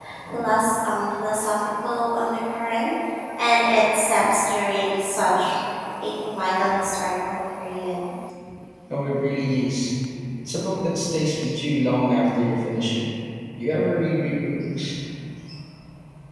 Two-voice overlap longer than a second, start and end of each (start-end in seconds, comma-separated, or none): none